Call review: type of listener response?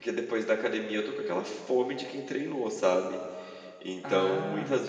listening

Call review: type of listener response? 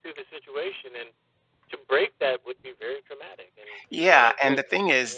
taking over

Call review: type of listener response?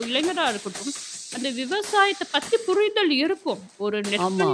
listening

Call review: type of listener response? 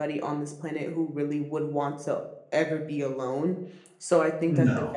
listening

